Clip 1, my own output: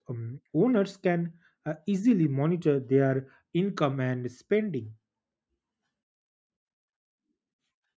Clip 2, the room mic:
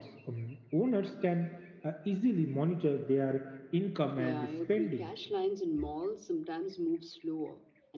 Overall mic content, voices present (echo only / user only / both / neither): both